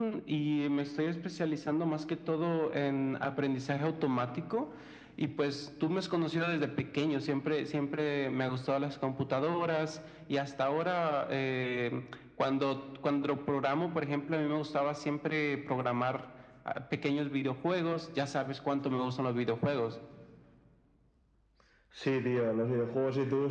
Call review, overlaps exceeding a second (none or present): none